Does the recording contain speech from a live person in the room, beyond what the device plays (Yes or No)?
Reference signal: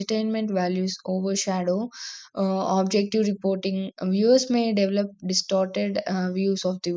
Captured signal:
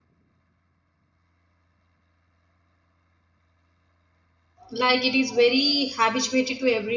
Yes